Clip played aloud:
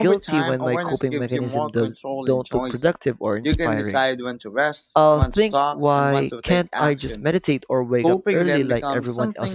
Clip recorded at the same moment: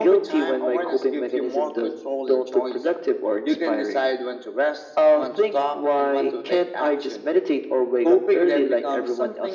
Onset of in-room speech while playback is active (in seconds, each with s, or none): none